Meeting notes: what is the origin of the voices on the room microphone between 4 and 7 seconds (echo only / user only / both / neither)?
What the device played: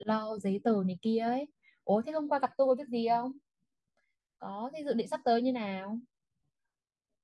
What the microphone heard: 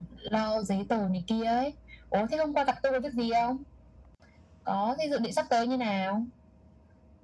echo only